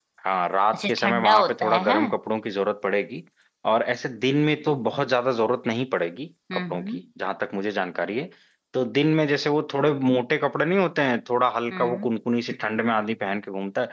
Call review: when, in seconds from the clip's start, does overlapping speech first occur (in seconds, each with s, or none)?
0.7 s